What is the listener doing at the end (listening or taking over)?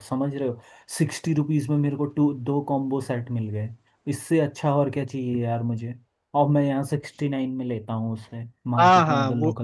taking over